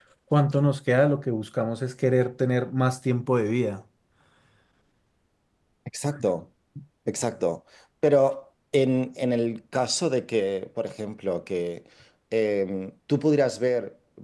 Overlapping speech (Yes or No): No